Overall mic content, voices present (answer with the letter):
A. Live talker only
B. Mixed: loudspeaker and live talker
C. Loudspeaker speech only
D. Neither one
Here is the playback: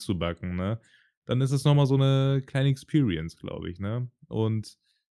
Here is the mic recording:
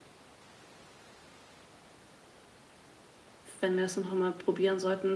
A